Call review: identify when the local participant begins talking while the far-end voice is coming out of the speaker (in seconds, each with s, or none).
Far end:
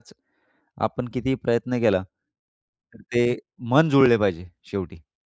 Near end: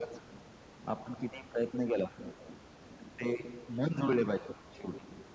none